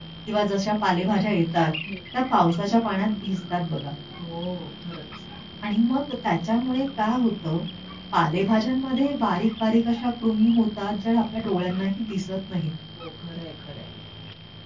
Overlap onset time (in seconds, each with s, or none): none